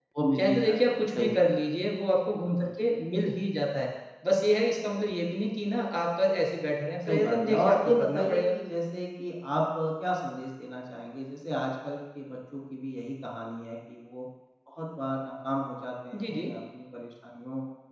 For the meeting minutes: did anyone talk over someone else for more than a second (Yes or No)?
Yes